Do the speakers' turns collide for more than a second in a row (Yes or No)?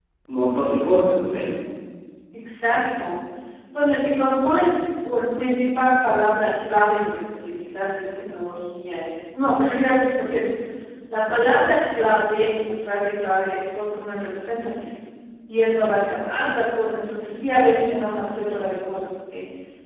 No